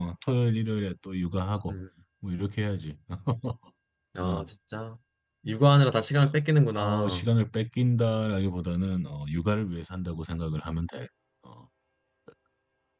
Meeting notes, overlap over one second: none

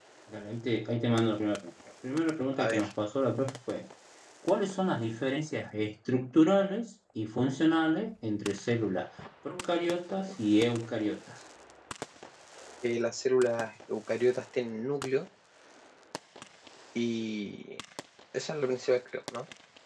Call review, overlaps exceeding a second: none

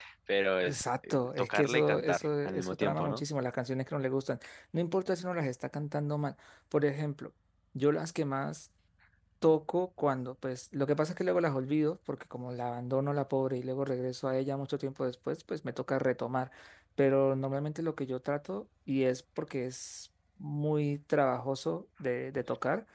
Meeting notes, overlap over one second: present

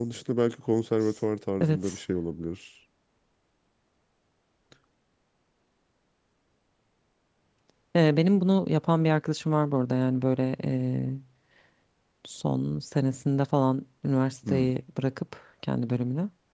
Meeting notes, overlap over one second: none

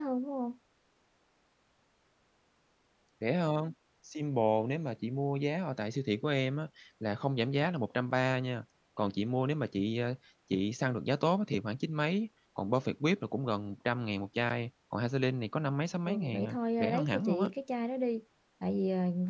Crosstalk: present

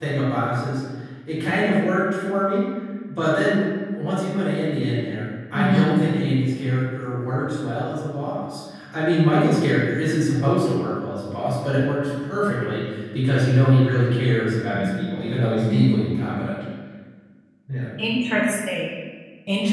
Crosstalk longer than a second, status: none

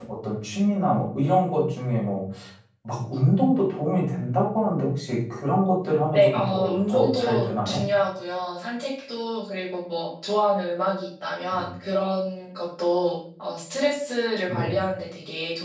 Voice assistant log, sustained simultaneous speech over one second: present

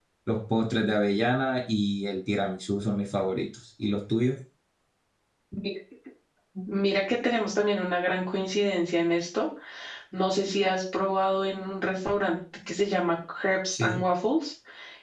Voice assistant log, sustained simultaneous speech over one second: none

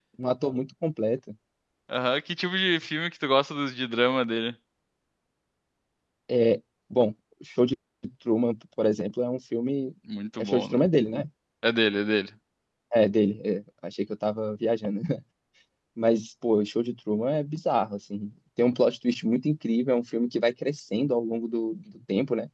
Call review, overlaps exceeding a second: none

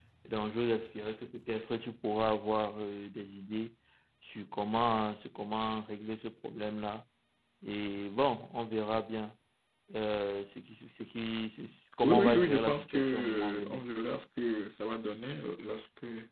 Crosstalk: present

